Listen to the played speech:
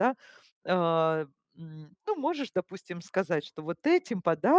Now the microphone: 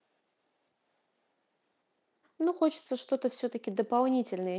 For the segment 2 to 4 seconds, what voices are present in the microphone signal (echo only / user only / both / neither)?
user only